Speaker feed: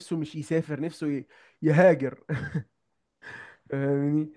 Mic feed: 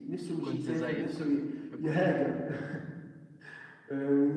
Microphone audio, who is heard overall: both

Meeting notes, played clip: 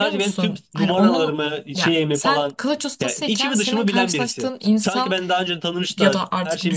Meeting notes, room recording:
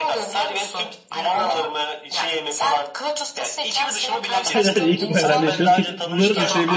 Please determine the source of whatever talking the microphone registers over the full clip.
both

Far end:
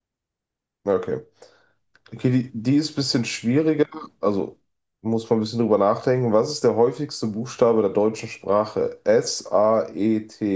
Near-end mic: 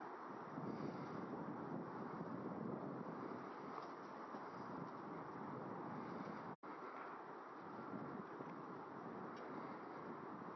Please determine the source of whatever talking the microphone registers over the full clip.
neither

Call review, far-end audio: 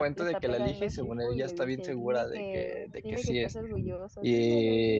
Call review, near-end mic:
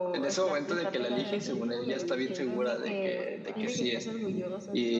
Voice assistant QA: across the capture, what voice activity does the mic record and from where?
both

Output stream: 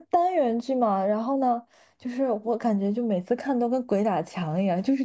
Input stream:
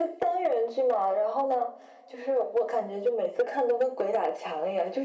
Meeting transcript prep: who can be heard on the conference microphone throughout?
echo only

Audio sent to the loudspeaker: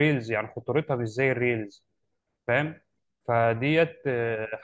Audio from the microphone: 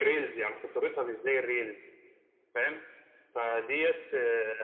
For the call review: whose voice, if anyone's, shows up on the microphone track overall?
echo only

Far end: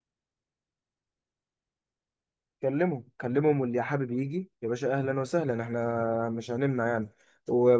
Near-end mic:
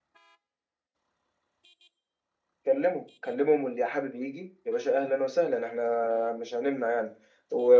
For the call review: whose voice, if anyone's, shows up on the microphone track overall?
echo only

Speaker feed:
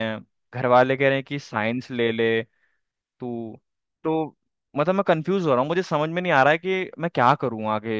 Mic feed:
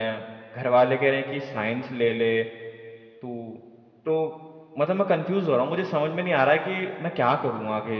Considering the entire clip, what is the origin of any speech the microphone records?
echo only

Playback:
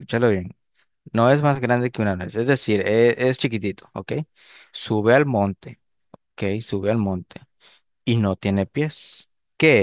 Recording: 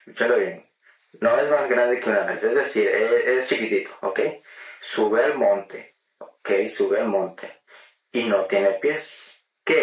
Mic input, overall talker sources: echo only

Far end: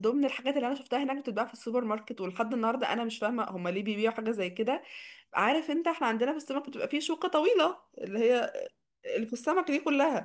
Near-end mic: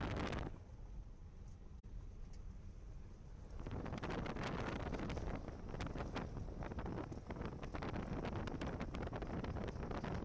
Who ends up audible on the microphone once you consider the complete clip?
neither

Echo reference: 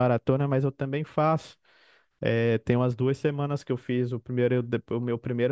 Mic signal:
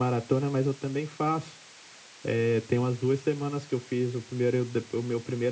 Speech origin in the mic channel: echo only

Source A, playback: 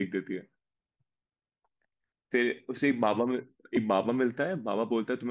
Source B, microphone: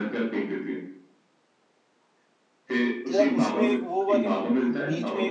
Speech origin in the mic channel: both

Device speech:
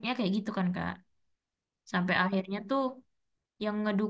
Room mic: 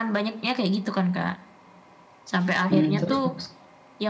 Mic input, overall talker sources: both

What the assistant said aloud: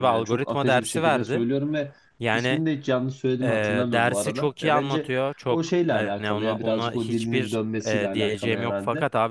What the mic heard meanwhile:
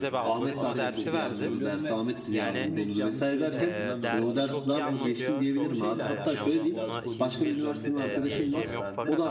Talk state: both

